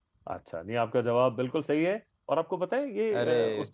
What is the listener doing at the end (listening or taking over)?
listening